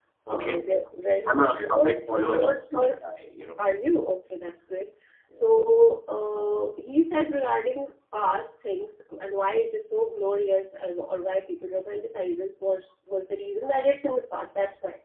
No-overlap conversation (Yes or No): No